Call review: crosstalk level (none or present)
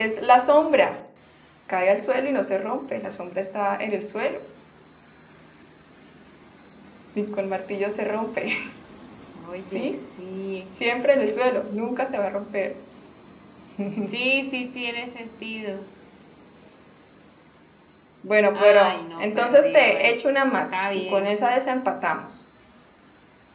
present